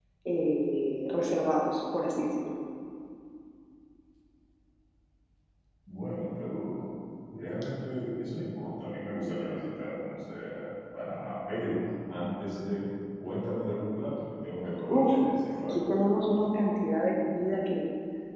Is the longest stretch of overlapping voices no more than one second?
Yes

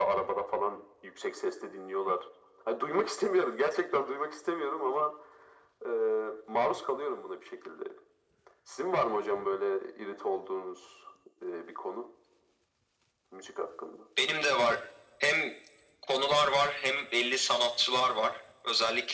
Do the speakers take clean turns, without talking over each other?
Yes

